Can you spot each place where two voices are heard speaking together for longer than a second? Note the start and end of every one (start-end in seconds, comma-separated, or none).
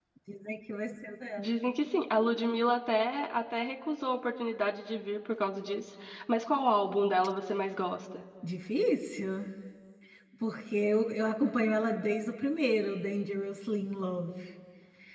none